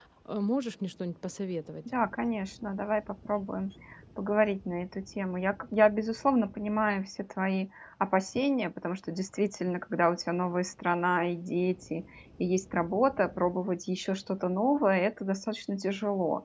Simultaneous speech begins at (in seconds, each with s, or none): none